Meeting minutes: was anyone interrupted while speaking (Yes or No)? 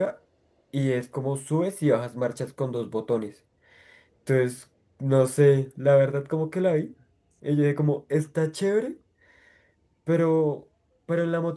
No